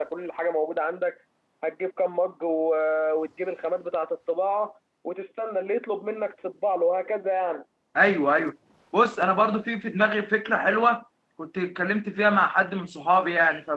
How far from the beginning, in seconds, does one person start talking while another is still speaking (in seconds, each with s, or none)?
none